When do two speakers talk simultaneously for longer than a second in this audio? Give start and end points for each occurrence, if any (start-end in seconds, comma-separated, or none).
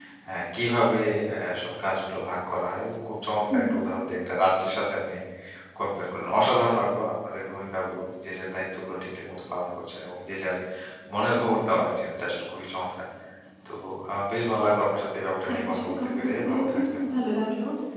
15.5-16.8